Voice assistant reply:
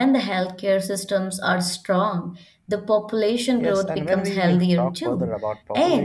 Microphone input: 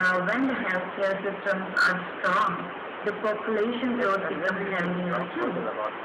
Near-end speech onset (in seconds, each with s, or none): none